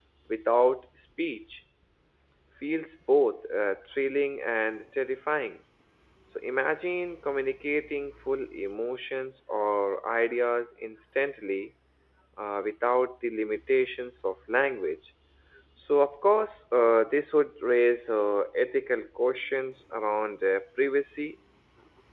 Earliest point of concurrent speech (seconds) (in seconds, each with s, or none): none